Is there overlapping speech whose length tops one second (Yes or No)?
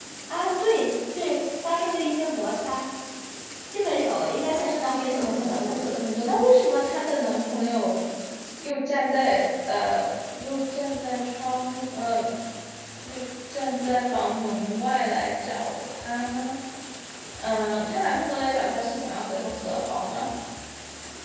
Yes